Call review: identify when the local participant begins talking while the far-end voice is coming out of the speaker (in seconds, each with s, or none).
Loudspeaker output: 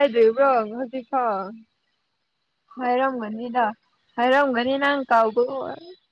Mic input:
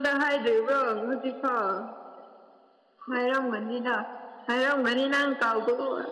none